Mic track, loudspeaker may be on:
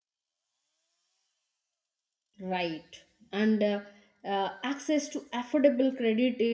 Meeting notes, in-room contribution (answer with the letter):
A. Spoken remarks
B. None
A